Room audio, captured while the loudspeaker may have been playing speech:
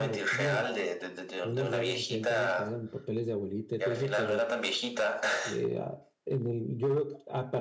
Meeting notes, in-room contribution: present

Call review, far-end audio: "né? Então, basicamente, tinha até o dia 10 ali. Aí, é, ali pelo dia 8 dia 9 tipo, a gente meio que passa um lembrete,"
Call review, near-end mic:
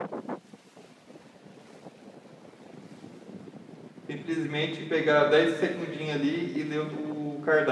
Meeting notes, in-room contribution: present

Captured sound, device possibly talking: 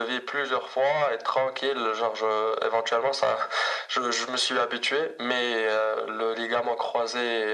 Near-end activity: none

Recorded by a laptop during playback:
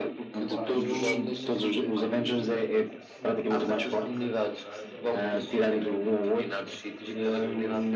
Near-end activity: present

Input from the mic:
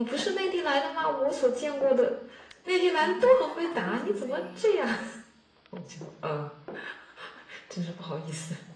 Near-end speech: present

